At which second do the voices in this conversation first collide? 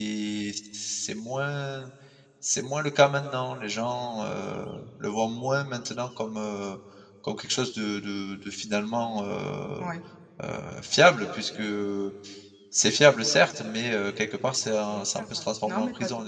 15 s

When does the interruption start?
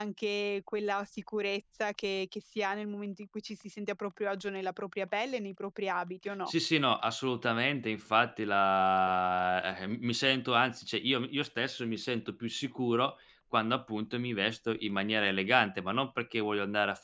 none

